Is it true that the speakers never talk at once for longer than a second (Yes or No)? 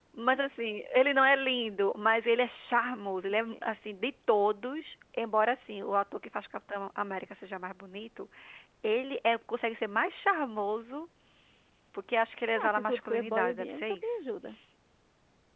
No